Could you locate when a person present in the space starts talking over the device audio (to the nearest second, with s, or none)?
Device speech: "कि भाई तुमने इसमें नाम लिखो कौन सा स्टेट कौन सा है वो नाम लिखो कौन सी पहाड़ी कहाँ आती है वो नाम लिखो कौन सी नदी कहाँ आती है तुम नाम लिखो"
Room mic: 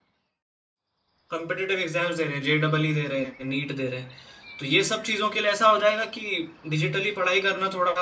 1 s